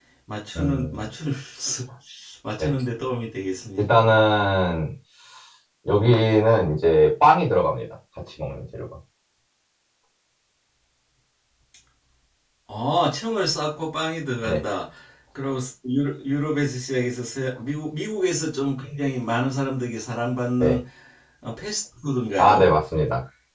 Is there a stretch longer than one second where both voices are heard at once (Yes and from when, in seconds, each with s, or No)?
No